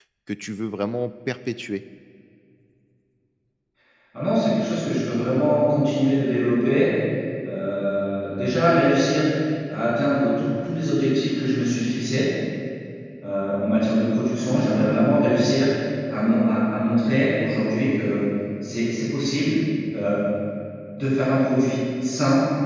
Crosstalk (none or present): none